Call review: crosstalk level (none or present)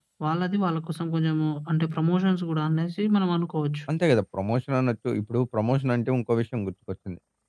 none